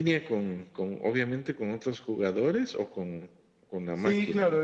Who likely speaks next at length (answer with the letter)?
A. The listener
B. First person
A